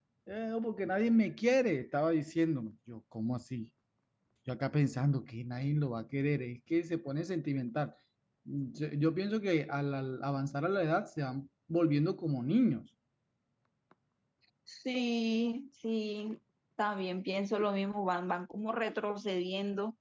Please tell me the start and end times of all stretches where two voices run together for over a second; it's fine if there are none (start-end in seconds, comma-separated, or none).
none